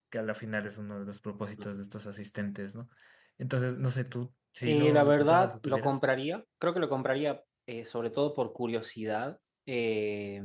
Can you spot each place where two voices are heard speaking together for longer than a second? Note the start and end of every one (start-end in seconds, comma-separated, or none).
4.6-6.0